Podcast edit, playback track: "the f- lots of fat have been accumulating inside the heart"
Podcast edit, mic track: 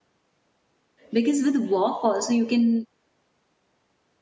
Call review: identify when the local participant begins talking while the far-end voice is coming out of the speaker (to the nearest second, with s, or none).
1 s